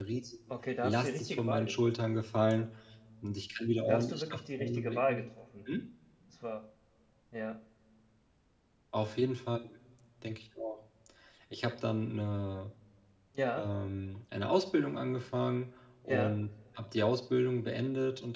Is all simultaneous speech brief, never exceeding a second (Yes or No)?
No